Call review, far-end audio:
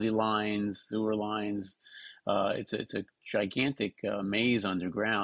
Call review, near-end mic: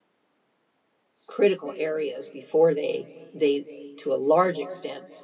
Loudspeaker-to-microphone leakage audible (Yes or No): No